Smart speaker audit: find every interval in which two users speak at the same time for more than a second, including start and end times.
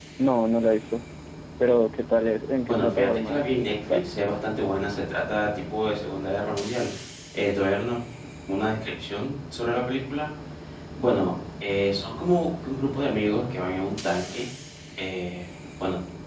2.6-4.1

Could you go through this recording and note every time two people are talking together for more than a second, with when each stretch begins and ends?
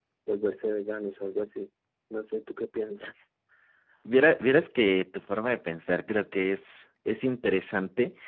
none

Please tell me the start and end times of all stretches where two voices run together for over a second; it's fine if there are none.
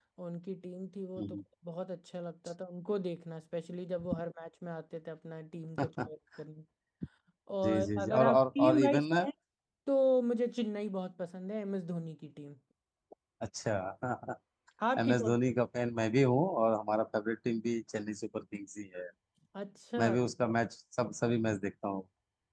7.6-9.3

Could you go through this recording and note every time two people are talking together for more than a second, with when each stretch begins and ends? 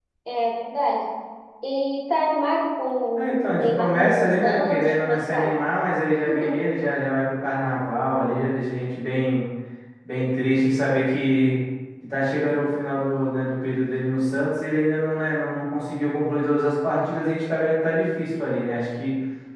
3.2-5.5

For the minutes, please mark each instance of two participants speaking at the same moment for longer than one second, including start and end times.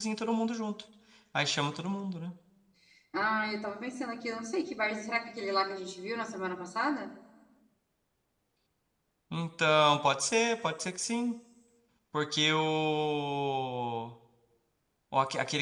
none

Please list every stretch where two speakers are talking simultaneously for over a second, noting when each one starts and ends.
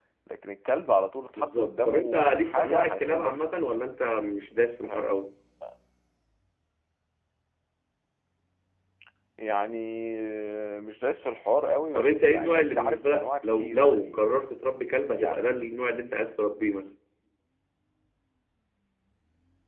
1.4-3.6, 11.9-14.4

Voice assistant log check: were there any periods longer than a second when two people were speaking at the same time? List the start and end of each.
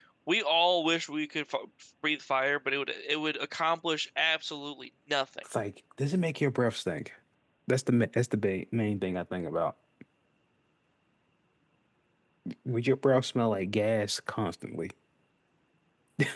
none

